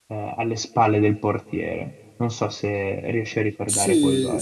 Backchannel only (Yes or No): No